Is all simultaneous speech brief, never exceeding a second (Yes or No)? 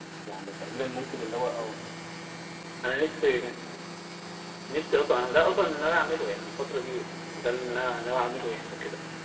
Yes